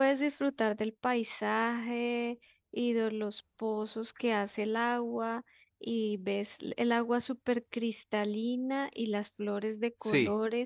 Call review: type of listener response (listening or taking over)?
listening